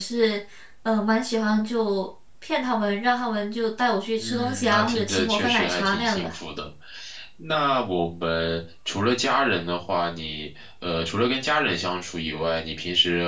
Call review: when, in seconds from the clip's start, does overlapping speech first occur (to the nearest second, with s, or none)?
4 s